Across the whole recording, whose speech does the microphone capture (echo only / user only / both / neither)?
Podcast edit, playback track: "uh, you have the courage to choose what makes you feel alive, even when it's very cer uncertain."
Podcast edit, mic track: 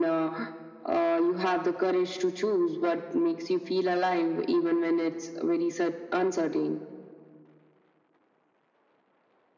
echo only